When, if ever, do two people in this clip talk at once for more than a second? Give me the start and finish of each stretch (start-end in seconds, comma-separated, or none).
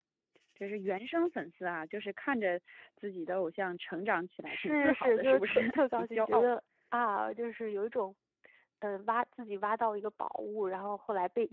4.5-6.6